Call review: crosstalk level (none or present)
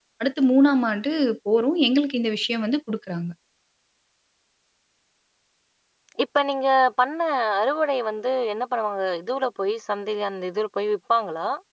none